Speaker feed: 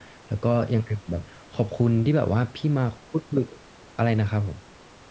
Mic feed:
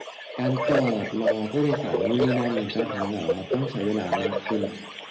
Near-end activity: present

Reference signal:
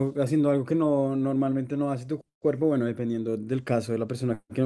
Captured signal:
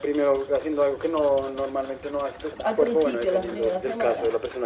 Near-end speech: present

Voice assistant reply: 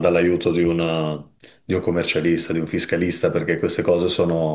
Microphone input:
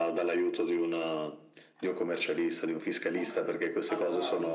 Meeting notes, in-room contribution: present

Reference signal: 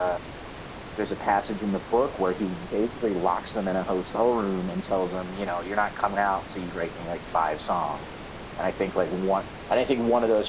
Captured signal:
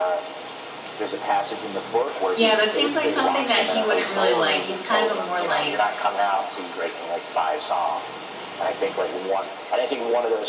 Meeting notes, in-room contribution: present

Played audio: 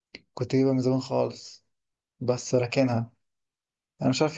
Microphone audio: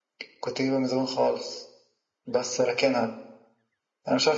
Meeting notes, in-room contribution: none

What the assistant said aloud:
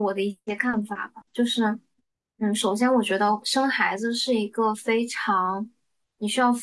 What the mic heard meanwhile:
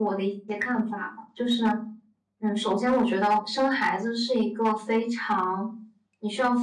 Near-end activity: none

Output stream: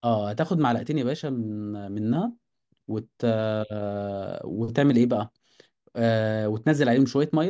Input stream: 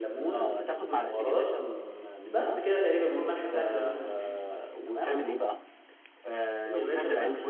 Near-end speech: present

